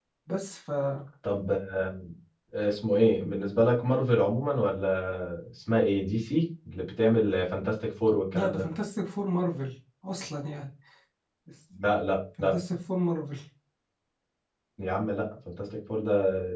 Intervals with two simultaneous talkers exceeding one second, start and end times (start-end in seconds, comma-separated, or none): none